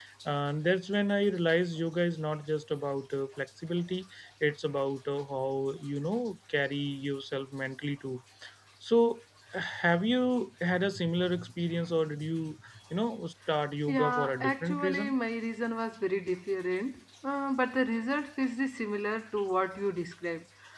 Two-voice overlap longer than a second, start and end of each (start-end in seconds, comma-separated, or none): 13.9-15.1